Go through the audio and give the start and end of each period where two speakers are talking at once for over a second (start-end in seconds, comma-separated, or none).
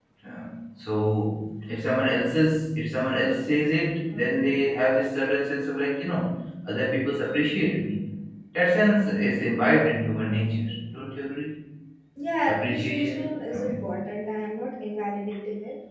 12.4-13.9